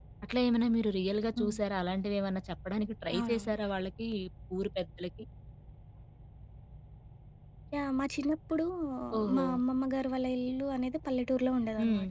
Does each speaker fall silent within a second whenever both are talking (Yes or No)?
Yes